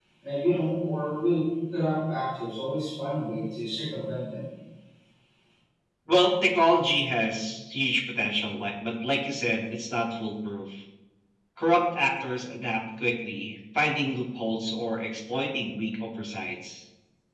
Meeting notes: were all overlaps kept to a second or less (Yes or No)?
Yes